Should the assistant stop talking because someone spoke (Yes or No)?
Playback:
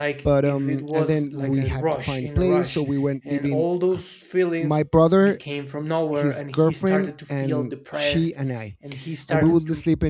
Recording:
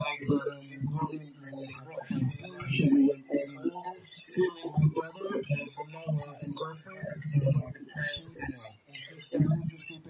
No